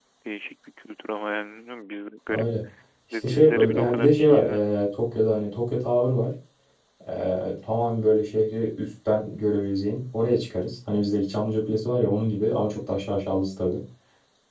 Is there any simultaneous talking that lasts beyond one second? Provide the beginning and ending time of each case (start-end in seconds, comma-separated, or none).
3.2-4.7